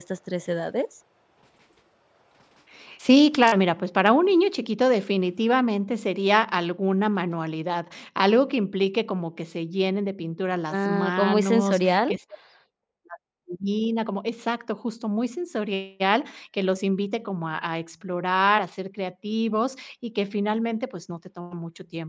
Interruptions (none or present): present